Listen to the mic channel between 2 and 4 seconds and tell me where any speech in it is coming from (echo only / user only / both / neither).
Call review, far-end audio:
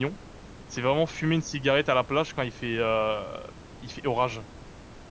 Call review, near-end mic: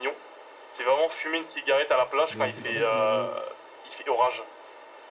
both